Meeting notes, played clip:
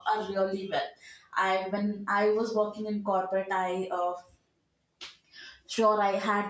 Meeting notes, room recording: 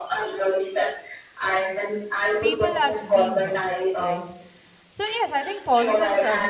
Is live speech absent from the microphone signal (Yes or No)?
No